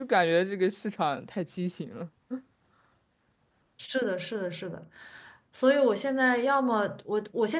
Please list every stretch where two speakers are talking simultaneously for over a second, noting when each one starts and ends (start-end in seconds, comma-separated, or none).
none